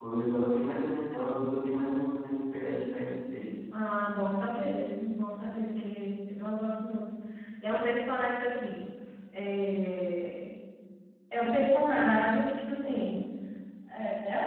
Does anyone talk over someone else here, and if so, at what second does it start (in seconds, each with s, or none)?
none